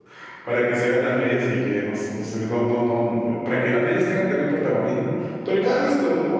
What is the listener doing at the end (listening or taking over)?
listening